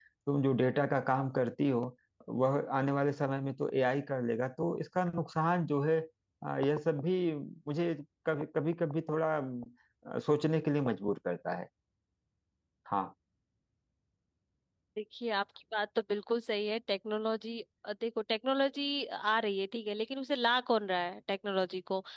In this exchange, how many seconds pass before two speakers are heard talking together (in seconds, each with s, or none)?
none